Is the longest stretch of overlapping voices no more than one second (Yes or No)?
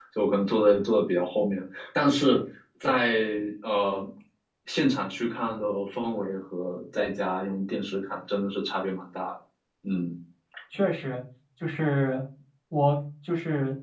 Yes